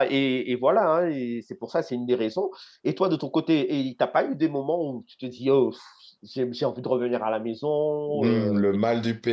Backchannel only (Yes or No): No